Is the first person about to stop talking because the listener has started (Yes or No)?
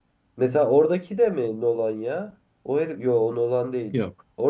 No